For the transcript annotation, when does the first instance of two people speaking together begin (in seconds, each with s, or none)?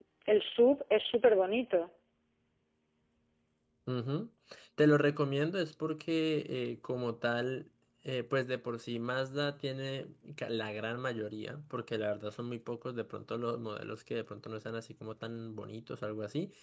none